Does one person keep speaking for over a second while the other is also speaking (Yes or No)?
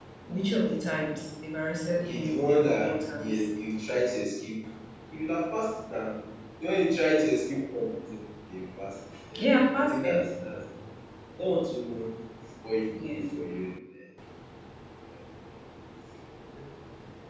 Yes